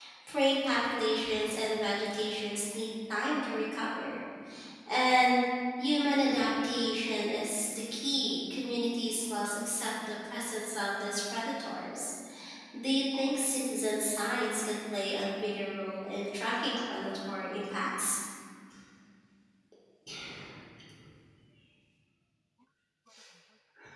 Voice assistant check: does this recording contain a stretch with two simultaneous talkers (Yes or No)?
No